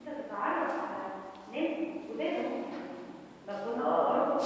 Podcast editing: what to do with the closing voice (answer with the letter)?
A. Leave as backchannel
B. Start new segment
A